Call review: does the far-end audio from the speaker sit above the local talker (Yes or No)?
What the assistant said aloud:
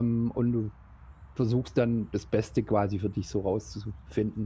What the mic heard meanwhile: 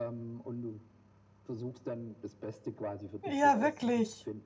No